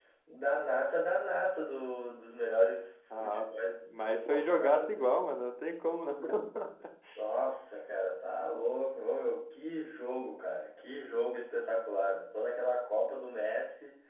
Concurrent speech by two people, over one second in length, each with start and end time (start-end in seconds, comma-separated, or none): 3.8-5.1